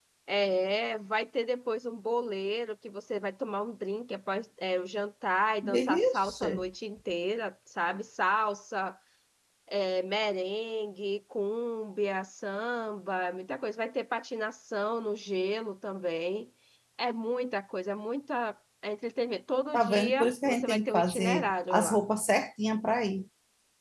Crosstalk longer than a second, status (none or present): present